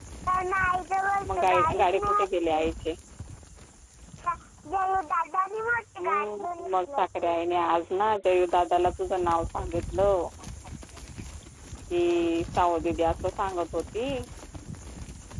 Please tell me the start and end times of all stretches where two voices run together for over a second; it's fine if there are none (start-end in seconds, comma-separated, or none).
1.4-2.6, 6.0-7.3